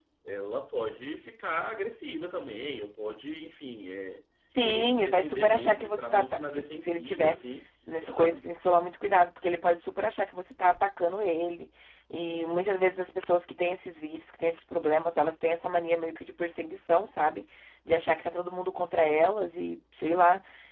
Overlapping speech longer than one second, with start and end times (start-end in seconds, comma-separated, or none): 4.6-7.4